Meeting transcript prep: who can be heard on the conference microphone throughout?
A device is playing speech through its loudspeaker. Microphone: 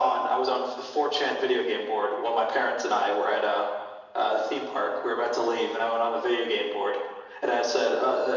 echo only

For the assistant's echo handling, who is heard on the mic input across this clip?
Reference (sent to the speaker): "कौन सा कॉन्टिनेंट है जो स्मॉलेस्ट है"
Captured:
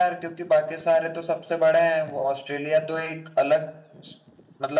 user only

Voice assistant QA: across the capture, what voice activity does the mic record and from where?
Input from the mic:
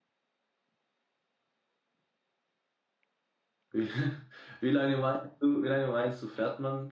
user only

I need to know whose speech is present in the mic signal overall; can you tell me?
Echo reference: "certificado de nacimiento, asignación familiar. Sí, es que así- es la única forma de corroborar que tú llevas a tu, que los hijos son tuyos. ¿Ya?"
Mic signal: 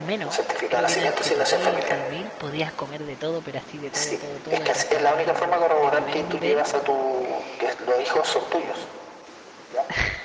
both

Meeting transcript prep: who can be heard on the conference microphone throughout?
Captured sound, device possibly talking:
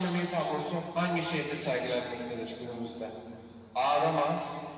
echo only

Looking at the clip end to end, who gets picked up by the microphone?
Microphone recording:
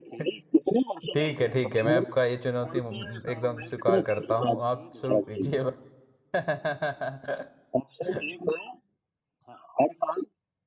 both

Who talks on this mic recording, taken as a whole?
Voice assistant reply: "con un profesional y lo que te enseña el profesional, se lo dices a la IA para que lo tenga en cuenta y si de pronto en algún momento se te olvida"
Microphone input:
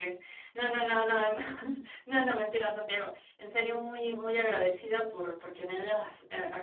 user only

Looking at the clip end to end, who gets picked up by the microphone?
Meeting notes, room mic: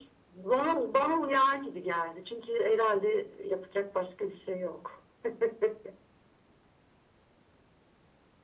echo only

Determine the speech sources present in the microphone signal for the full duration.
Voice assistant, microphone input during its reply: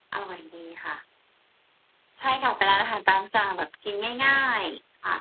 user only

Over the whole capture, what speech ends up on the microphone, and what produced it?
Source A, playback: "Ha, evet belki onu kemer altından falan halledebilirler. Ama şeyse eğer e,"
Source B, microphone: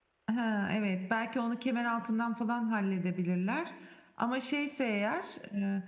echo only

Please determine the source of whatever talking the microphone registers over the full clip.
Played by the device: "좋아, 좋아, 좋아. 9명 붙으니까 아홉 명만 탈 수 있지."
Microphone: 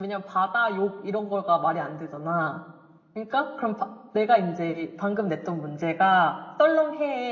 user only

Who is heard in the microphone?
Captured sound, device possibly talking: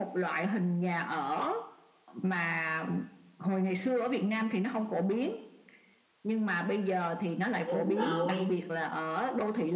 both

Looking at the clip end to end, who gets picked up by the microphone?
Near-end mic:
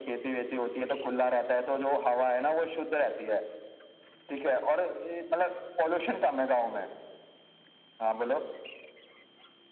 echo only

